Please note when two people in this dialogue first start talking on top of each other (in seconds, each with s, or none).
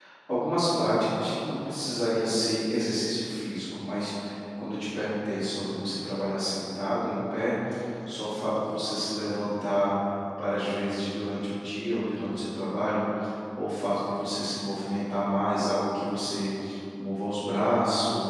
none